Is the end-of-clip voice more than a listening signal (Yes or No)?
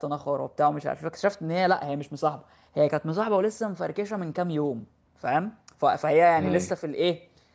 No